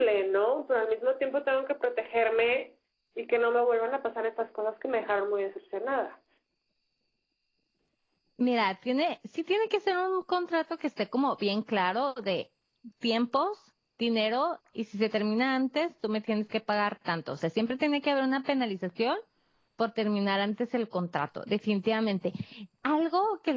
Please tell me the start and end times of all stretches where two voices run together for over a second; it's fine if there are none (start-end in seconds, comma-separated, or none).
none